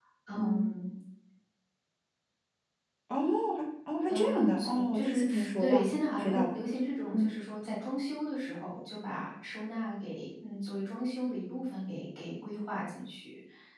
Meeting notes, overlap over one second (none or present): present